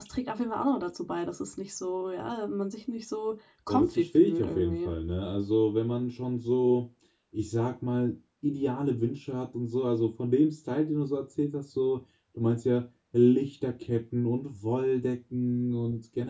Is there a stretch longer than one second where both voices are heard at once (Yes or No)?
Yes